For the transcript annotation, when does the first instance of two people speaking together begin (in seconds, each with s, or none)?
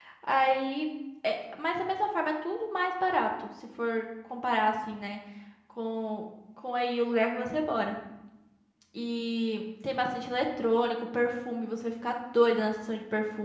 none